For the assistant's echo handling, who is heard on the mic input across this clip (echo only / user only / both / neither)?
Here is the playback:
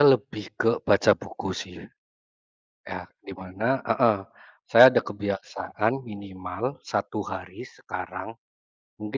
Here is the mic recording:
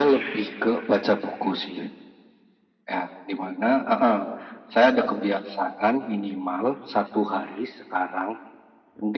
echo only